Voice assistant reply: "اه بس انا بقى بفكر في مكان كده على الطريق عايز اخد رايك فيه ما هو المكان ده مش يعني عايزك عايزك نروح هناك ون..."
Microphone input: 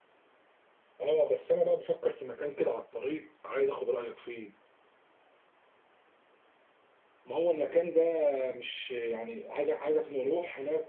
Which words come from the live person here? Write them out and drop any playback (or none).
none